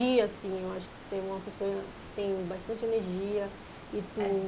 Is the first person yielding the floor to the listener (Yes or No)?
No